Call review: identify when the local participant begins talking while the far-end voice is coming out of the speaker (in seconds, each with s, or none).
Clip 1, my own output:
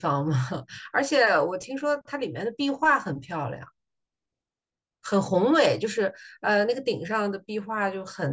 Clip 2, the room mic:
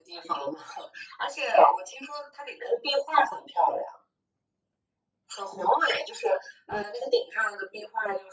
none